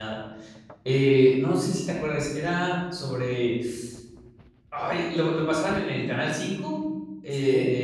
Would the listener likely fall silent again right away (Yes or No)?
Yes